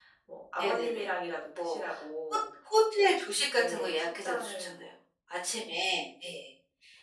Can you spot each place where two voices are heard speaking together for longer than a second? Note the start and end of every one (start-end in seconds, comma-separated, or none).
3.5-4.9